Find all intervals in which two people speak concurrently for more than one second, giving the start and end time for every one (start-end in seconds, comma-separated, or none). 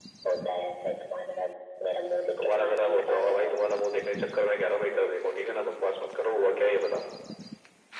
2.4-3.7